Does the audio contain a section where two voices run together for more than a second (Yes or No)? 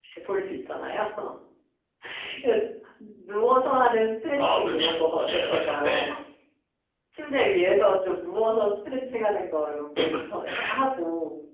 Yes